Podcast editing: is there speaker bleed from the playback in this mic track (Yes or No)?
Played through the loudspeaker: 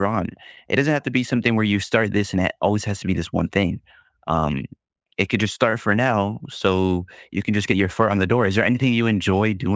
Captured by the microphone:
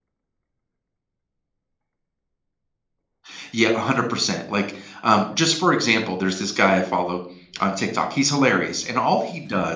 No